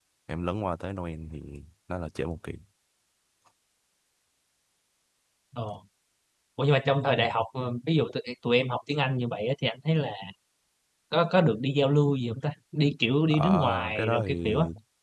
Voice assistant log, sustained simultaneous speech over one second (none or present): present